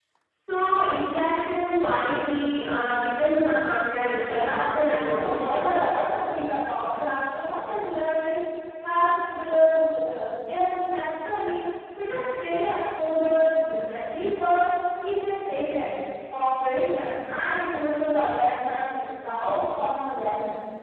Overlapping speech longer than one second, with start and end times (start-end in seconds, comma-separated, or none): 4.2-5.7